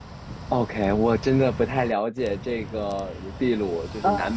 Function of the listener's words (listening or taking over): listening